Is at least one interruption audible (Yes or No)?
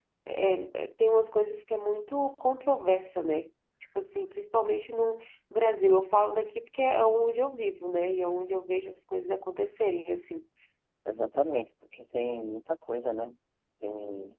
No